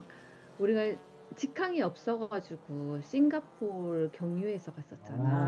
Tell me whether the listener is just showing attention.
No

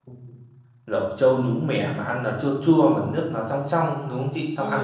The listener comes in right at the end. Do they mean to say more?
Yes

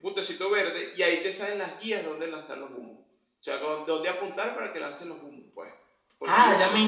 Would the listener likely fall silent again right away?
No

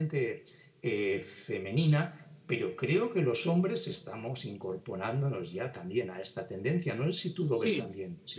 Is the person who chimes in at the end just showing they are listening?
No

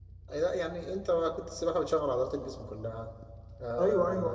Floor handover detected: Yes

